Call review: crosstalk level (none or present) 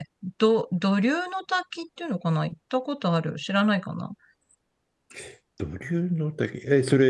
none